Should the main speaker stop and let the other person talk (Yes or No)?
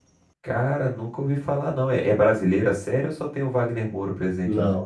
Yes